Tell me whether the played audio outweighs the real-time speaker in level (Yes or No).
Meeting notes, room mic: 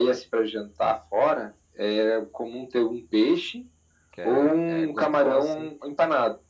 Yes